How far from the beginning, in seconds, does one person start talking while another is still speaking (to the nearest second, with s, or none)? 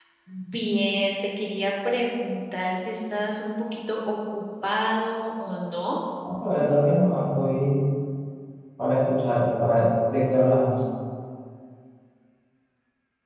none